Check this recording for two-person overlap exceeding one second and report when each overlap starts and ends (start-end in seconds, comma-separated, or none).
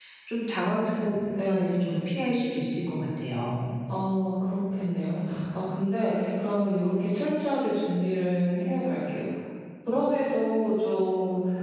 none